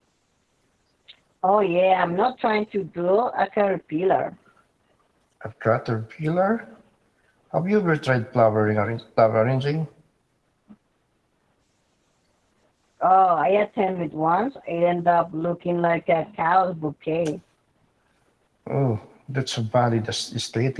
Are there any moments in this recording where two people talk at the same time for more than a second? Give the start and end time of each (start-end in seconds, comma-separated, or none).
none